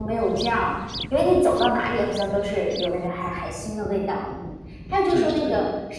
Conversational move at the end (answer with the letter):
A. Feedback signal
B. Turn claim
A